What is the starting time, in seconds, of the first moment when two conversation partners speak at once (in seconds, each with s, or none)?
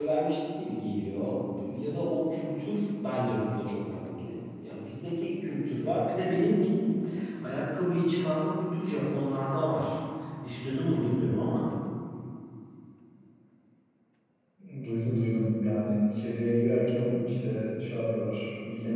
none